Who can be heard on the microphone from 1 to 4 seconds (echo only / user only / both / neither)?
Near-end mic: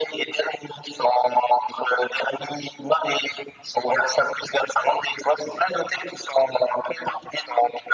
echo only